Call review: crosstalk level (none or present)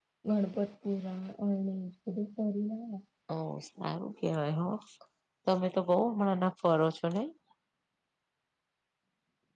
none